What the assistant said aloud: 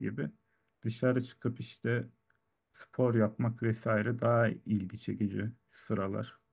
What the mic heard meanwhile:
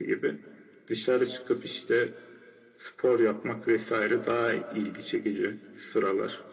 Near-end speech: none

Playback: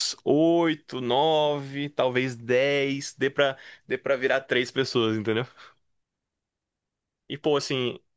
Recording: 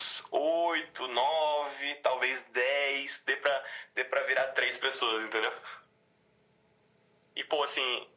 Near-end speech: none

